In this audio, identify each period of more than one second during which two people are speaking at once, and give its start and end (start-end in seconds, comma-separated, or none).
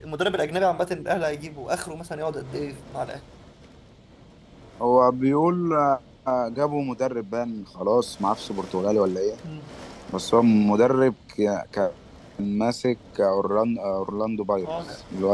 none